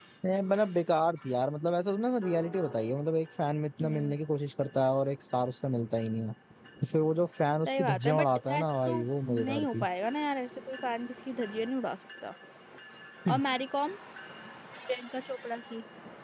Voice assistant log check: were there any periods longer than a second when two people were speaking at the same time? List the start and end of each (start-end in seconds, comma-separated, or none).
7.7-9.8